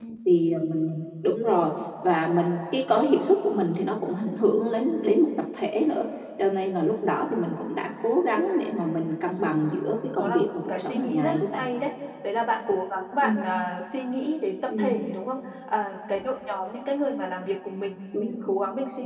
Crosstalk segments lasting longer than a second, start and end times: 10.1-11.6

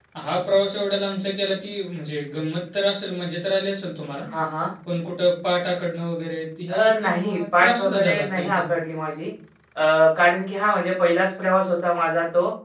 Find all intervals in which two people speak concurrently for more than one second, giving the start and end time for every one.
6.7-8.6

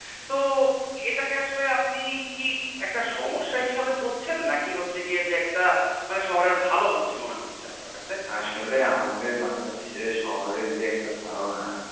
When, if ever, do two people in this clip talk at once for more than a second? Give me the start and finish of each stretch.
none

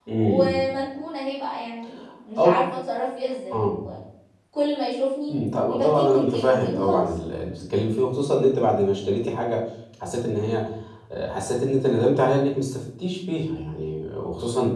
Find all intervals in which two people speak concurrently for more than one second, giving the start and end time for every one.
5.3-7.0

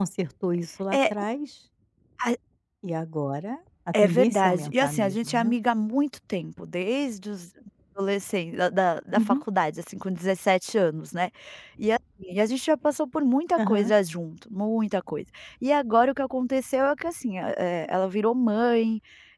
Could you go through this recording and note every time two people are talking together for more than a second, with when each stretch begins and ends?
4.0-5.5

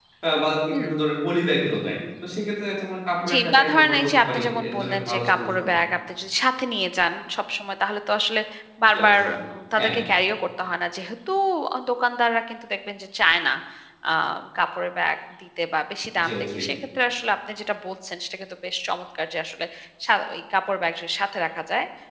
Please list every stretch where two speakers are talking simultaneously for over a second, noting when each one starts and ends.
3.3-5.7

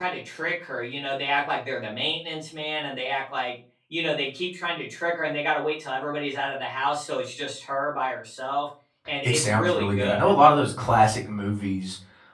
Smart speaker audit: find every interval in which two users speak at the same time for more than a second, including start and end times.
9.2-10.4

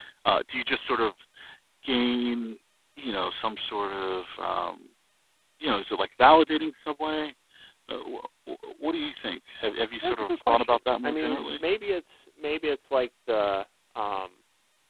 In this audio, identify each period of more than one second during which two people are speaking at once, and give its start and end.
10.0-11.6

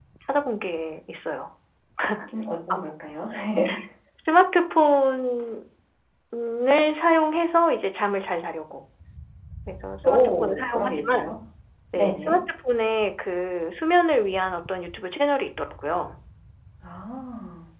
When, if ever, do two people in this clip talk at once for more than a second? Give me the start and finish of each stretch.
10.1-11.3

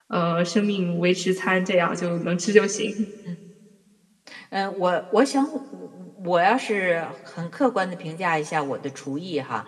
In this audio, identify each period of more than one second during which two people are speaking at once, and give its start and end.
none

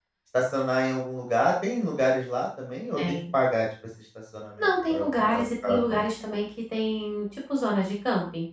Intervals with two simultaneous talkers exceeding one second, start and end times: 4.6-6.0

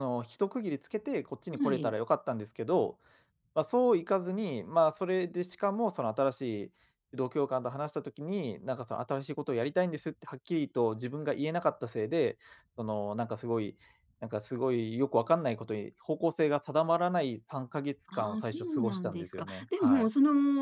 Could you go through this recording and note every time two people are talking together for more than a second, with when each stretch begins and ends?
18.1-20.1

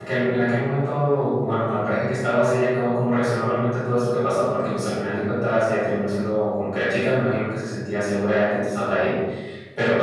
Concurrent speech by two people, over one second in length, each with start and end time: none

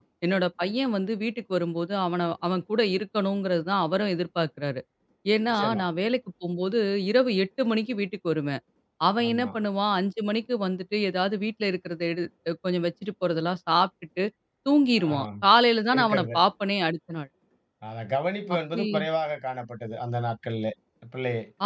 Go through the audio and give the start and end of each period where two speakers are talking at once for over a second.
none

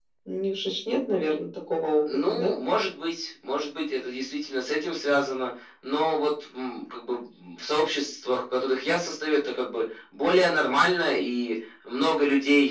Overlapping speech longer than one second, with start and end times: none

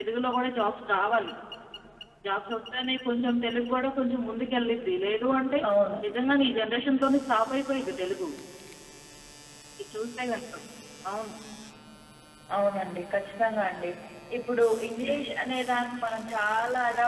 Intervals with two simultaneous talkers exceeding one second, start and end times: none

